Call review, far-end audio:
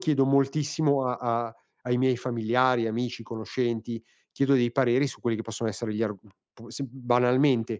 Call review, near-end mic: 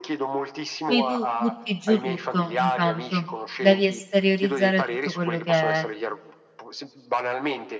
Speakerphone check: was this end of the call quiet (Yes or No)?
No